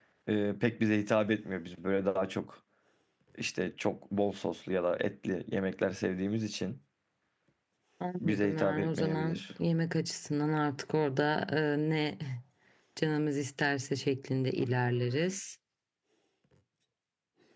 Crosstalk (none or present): present